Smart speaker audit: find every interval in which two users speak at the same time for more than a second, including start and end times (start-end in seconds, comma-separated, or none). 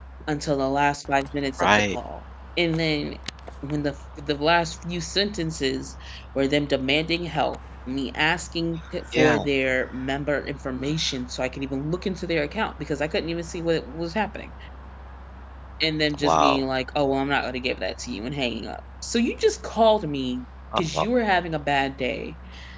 none